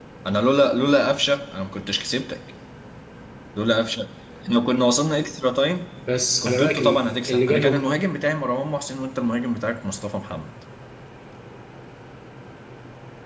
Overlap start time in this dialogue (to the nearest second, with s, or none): 6 s